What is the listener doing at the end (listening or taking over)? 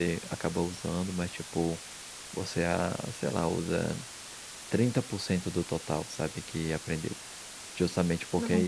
listening